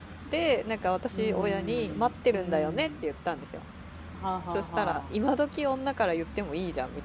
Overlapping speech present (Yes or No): Yes